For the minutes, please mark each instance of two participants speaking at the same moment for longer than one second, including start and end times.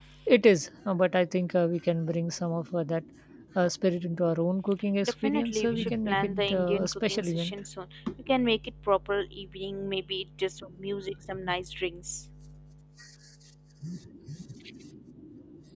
5.0-7.5

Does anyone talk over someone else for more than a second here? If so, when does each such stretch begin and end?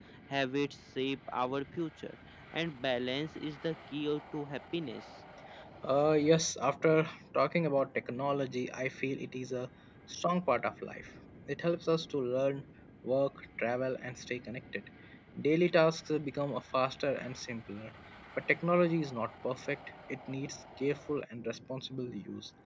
none

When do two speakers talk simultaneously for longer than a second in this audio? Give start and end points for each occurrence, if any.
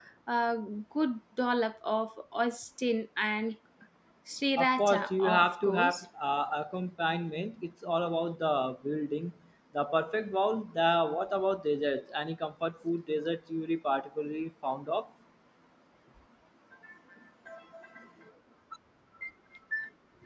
4.6-6.0

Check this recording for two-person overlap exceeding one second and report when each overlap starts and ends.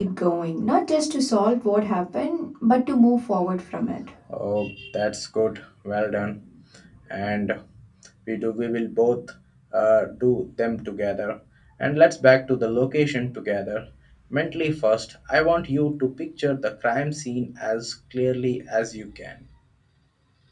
none

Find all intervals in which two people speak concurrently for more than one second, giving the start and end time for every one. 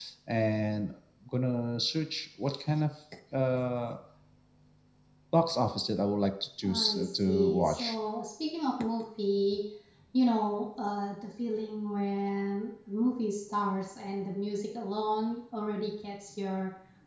6.6-8.0

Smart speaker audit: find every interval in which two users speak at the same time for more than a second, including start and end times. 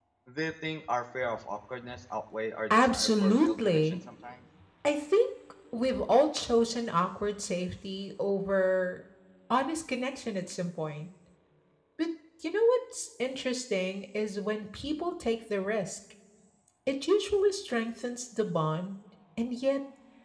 2.7-4.0

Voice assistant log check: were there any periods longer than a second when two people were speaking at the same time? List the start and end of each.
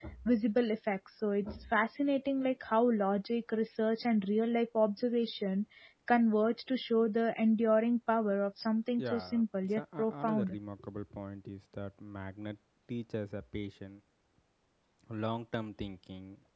9.0-10.6

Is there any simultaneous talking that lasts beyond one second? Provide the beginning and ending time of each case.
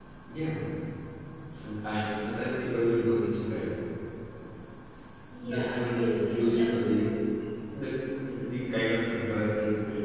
5.5-6.8

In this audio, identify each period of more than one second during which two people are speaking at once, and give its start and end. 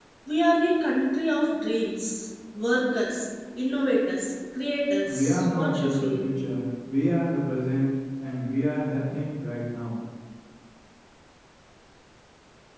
5.0-6.2

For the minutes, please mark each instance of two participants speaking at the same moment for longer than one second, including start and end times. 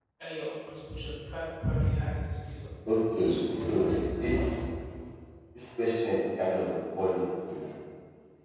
3.1-4.3

